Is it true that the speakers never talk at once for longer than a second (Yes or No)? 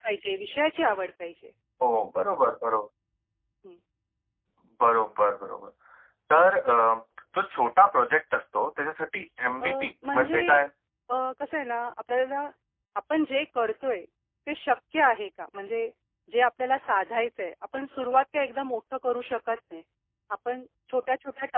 Yes